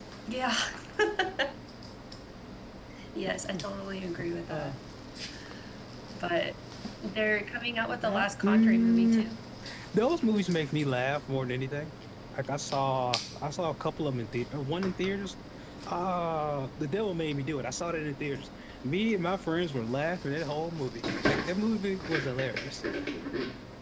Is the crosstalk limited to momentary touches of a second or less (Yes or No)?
No